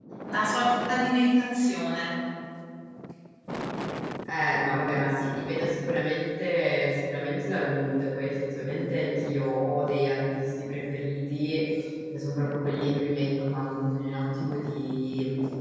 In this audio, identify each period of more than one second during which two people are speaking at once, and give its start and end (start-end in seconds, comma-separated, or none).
none